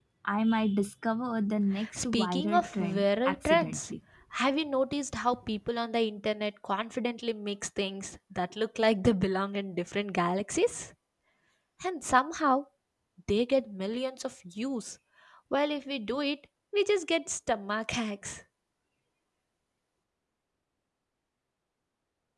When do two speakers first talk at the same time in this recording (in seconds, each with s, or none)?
1.7 s